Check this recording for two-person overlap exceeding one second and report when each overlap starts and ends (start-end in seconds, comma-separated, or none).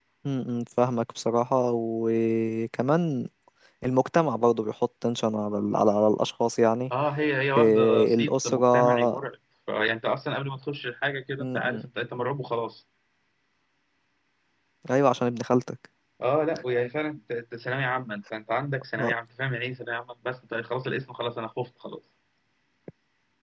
7.6-9.2